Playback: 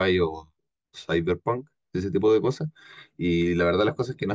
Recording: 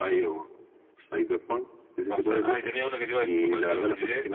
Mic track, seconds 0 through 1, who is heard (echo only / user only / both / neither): echo only